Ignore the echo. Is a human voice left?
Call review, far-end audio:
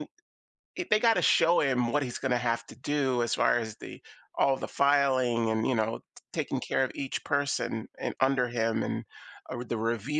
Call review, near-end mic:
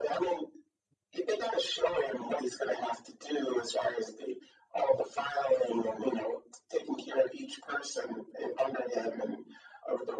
No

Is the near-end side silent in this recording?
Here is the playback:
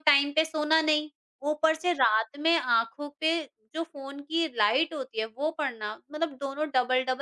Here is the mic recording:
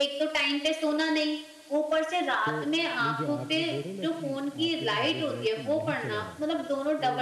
No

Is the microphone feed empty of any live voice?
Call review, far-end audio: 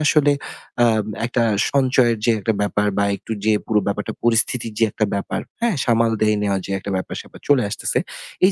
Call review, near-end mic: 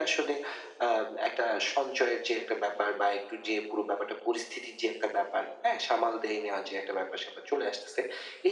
Yes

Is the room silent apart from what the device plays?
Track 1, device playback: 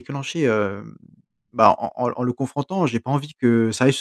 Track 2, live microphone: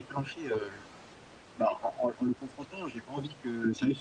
Yes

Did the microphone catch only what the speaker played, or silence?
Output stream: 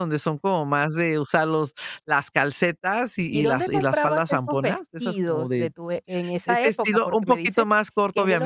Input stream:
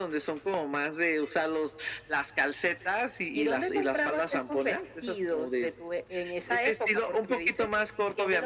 Yes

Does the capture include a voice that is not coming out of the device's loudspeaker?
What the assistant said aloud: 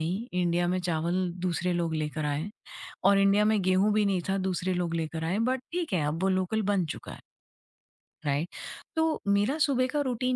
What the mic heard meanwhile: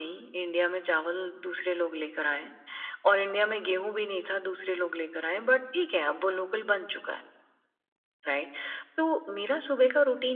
No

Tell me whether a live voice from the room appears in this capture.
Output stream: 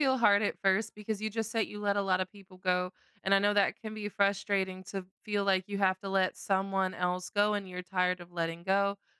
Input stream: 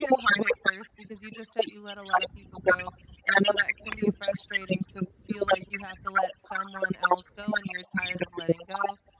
No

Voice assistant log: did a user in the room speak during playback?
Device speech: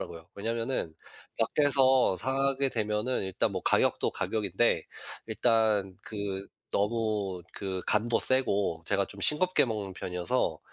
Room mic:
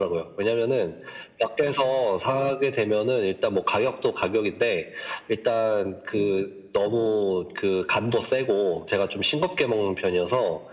No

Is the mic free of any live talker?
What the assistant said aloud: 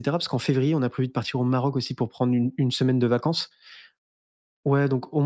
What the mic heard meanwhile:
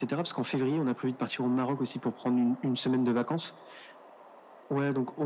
Yes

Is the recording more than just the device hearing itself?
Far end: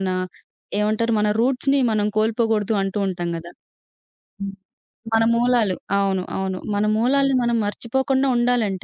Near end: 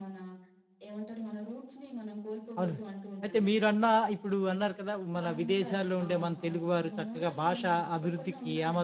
Yes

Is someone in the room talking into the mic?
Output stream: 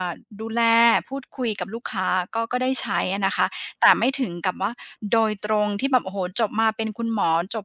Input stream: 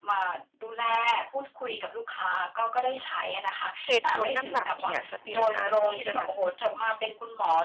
Yes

